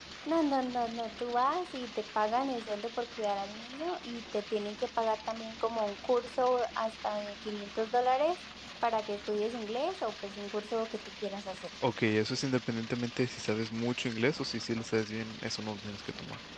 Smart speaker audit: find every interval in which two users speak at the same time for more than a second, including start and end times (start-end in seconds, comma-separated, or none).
none